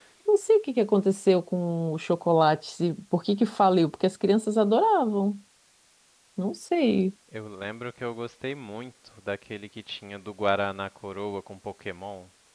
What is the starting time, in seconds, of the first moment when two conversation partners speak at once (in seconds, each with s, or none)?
none